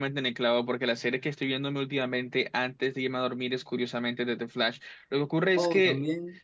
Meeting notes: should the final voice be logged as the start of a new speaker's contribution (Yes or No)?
No